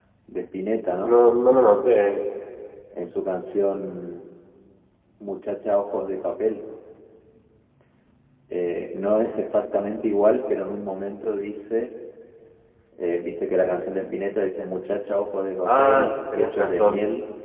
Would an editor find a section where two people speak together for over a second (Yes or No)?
Yes